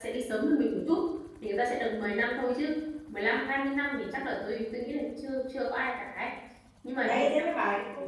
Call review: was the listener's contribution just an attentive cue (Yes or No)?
No